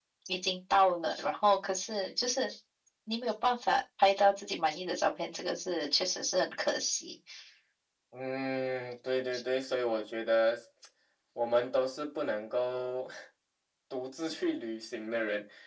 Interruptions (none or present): none